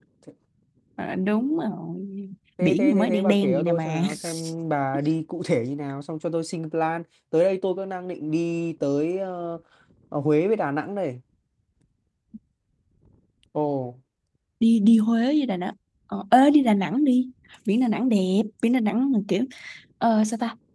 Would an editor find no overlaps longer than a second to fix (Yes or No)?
No